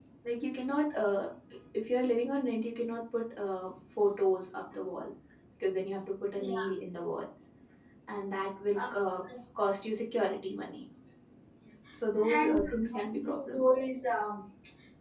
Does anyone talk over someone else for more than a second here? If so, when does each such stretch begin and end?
12.1-13.6

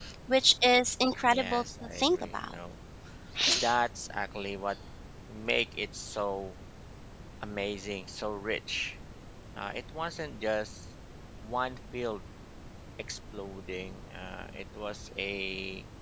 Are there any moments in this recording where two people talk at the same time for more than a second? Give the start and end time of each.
1.3-2.5

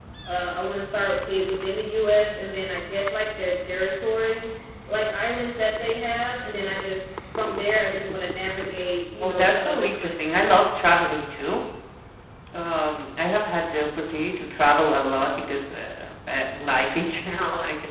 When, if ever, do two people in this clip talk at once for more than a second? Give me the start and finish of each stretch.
9.2-10.5

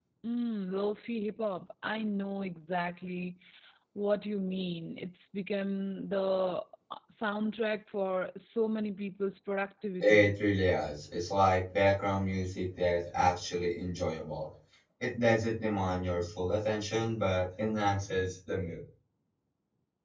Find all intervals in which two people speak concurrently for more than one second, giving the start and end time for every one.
none

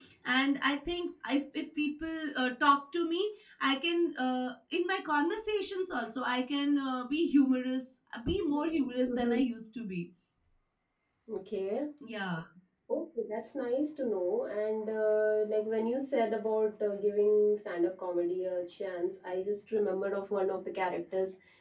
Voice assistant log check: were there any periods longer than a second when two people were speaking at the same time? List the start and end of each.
none

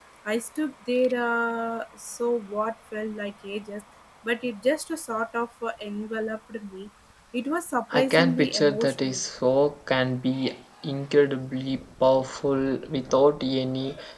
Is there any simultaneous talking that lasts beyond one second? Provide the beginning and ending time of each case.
7.9-9.2

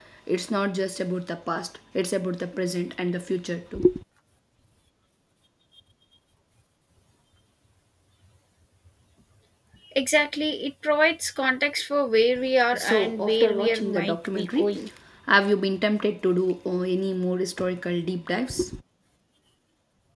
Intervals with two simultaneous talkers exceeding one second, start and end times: 12.7-14.7

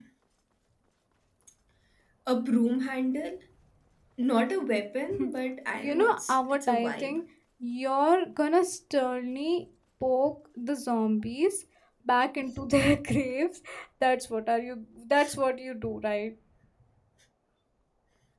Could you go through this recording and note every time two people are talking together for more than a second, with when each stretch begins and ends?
5.8-7.2

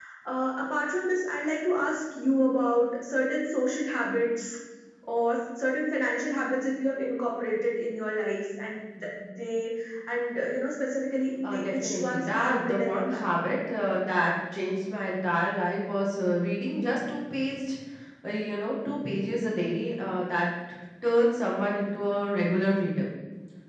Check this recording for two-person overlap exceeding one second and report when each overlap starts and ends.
11.4-13.2

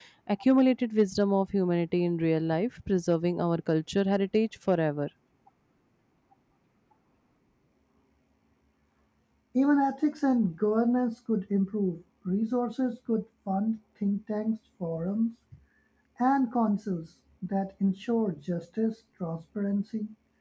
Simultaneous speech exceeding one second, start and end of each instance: none

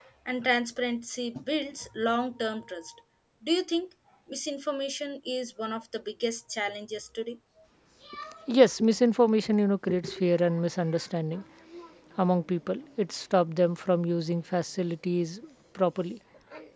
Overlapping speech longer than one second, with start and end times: none

